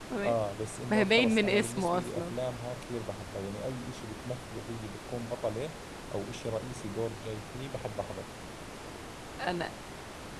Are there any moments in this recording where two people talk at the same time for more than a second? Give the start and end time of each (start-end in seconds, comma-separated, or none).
0.9-2.3